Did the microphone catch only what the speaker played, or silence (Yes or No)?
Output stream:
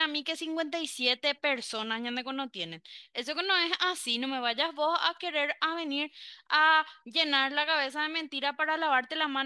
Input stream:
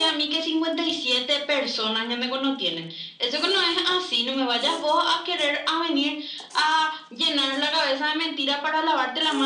Yes